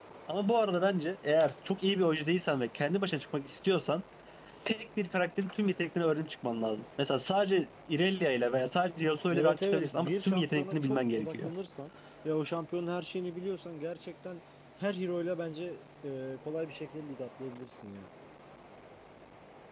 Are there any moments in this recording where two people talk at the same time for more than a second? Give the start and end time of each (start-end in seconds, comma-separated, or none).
9.3-11.5